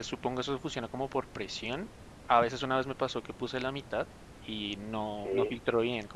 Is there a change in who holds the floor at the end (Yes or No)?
No